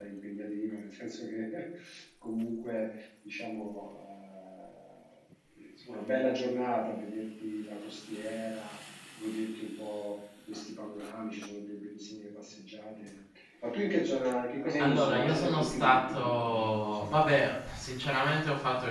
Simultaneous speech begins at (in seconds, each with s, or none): 14.8 s